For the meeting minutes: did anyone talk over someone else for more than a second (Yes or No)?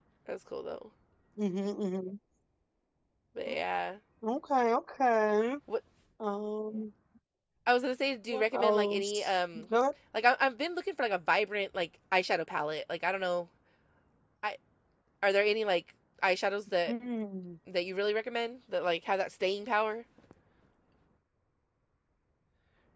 Yes